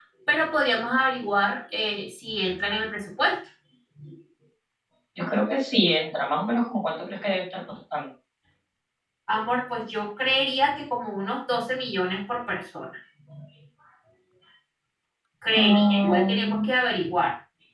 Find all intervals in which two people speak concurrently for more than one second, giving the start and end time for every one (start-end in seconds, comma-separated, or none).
15.5-16.7